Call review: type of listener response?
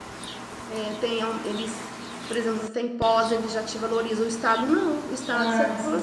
listening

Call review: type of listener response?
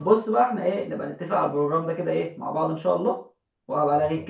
listening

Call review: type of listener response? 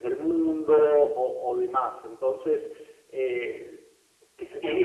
taking over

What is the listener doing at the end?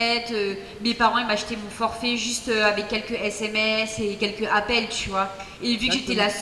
listening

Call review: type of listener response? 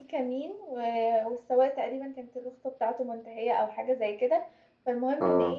listening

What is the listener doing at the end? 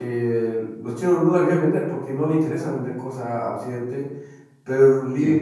listening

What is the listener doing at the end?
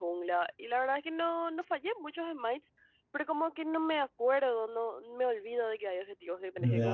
taking over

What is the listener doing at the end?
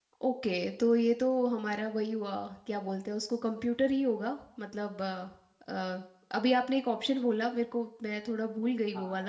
taking over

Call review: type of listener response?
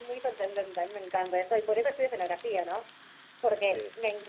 listening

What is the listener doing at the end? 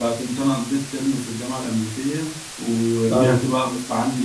listening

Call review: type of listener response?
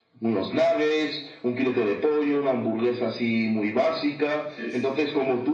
listening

